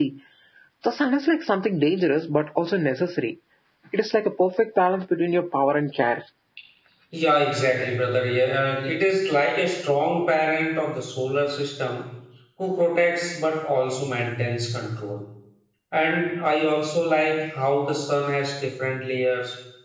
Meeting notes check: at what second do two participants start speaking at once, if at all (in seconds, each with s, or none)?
none